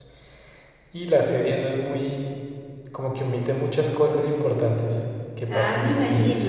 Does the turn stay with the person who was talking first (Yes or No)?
No